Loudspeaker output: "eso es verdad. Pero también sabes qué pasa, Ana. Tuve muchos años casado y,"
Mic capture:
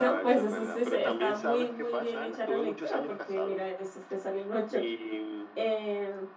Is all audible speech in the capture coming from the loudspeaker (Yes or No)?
No